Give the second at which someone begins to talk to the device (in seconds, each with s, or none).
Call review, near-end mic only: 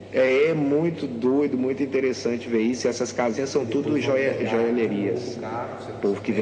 3.6 s